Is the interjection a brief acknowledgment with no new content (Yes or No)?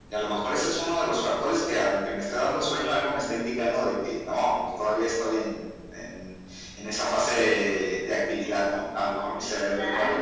No